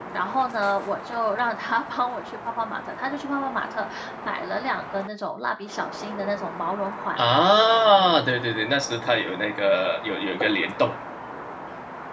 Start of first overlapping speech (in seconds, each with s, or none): none